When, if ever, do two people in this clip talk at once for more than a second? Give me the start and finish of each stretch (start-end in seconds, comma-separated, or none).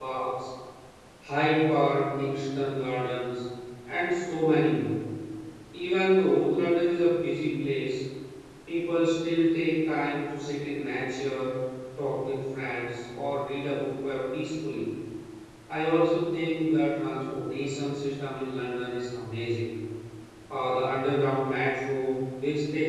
none